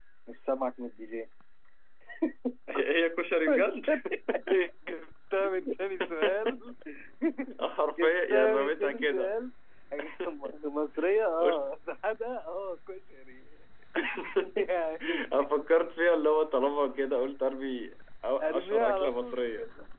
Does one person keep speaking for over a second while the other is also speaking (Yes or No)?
Yes